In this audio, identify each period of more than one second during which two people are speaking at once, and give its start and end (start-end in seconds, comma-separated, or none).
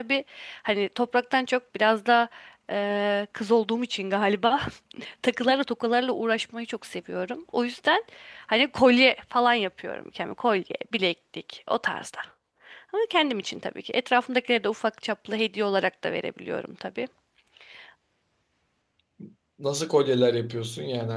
none